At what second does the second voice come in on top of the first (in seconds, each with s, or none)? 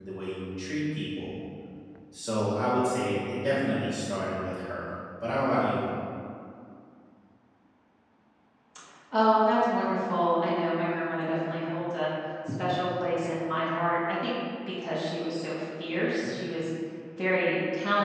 none